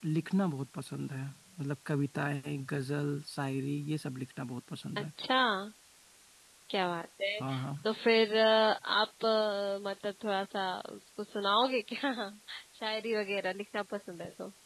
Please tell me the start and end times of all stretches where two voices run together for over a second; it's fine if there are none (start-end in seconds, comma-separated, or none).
none